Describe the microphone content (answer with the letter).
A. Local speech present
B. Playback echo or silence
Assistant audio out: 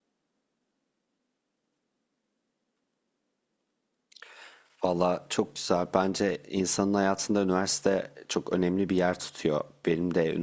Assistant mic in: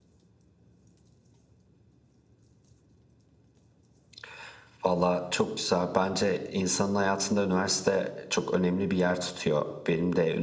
B